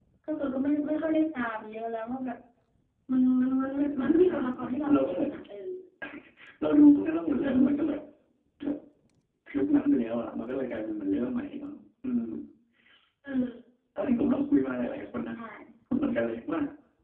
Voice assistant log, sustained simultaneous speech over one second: present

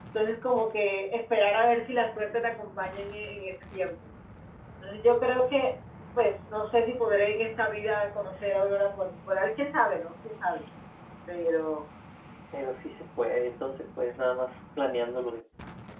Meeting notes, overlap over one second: none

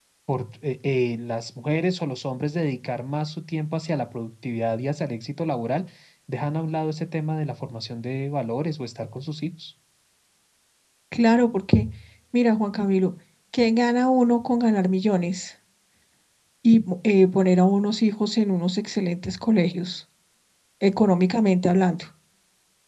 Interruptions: none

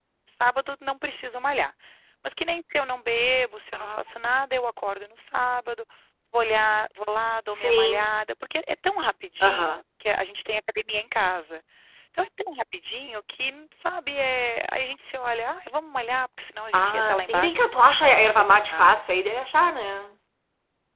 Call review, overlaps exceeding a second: present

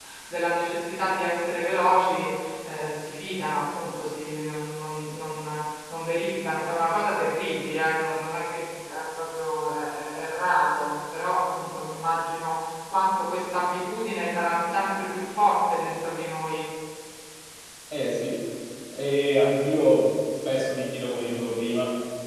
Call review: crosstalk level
none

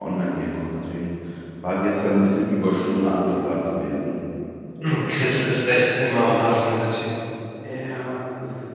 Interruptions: none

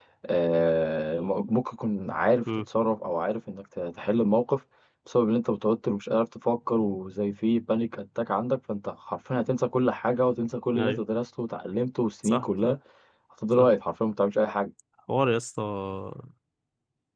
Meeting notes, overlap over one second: none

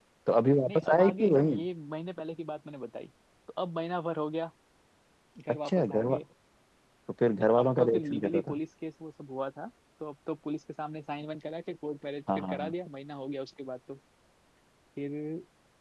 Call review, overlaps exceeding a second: present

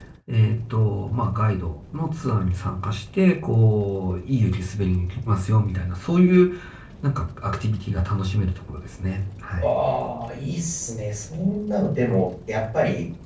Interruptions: none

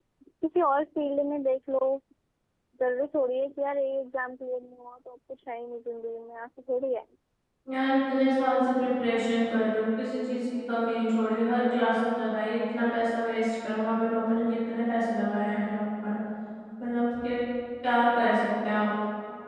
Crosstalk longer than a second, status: none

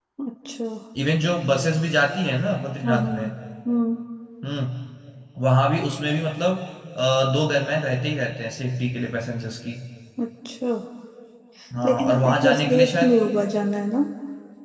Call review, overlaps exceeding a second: present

